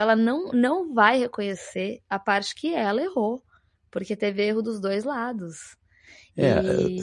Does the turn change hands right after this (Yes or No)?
Yes